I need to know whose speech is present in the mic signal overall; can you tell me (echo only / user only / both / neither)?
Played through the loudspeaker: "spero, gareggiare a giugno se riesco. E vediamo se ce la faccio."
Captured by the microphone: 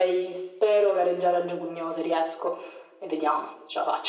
echo only